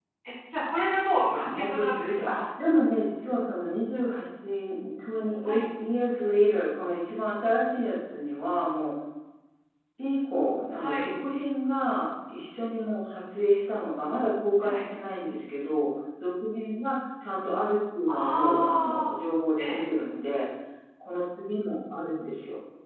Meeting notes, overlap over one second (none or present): present